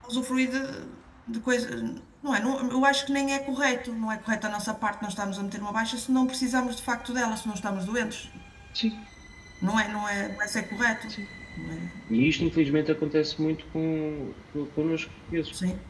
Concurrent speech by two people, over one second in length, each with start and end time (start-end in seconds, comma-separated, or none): none